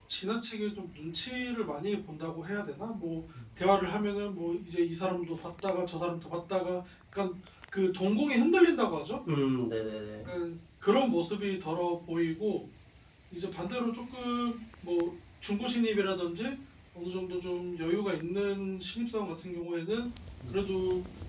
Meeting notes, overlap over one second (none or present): none